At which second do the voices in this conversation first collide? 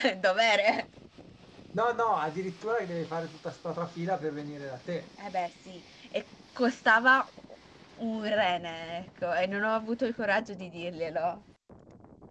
none

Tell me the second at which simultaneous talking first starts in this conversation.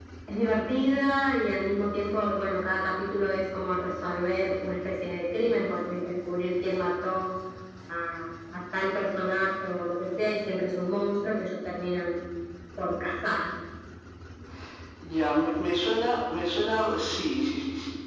none

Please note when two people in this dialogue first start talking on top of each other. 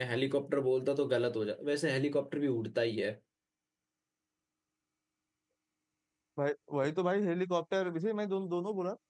none

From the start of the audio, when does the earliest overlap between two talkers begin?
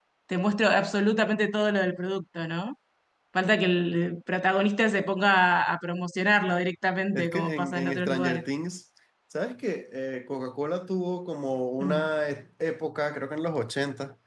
7.1 s

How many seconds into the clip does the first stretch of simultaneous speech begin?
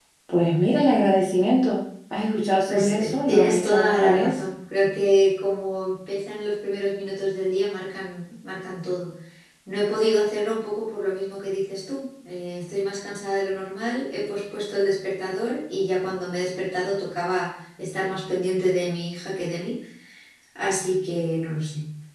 2.7 s

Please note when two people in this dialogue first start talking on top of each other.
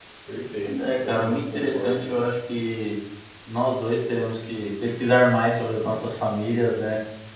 0.6 s

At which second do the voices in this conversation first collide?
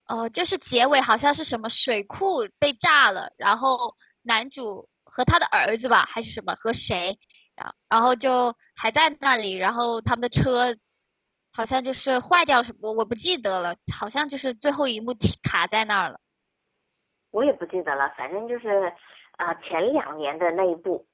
none

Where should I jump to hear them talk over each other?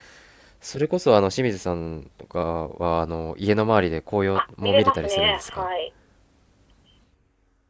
4.3 s

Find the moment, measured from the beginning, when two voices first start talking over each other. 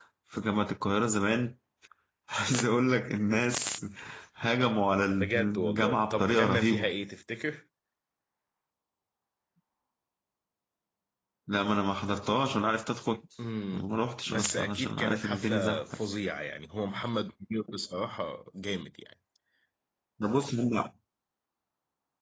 5.2 s

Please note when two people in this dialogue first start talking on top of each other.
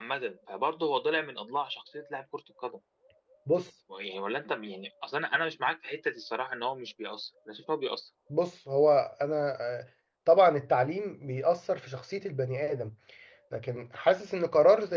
none

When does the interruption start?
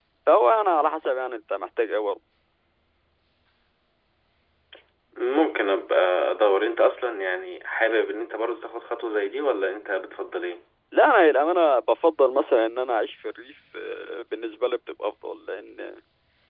none

